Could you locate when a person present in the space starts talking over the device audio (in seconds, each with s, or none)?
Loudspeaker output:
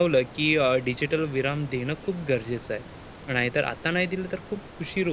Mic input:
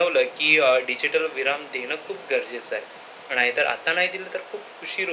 none